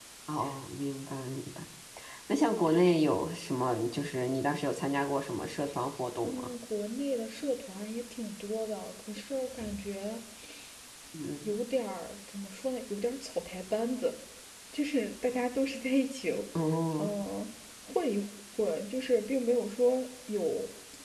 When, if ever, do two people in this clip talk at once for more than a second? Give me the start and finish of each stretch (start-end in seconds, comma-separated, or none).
none